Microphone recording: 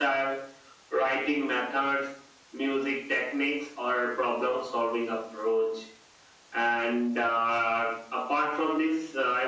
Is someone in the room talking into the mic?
No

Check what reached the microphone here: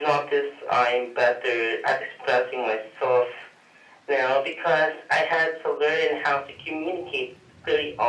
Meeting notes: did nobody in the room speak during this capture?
Yes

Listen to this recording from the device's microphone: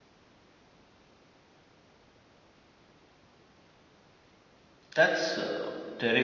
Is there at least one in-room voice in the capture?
Yes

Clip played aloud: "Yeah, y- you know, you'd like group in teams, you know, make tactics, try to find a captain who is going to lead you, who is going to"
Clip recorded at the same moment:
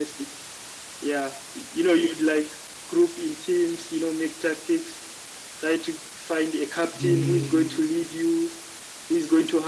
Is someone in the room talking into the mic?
Yes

